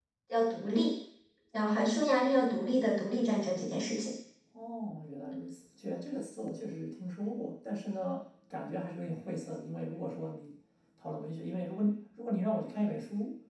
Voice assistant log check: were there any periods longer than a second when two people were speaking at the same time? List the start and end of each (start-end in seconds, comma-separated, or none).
none